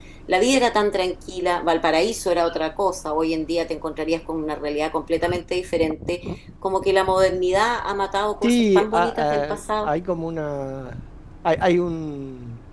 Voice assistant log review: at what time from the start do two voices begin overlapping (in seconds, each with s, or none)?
8.4 s